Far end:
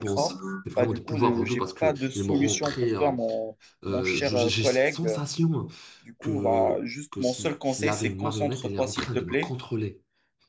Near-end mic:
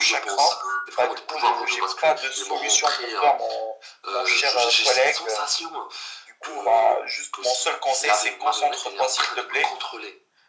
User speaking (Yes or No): No